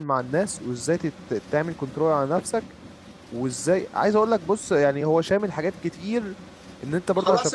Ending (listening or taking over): listening